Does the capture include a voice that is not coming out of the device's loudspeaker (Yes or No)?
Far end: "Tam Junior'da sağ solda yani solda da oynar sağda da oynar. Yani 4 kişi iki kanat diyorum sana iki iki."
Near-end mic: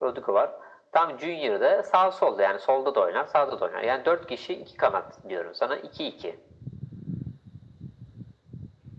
No